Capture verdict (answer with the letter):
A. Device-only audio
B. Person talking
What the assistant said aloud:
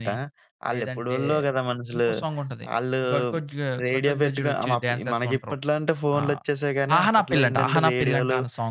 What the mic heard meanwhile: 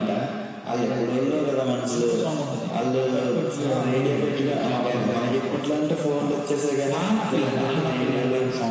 B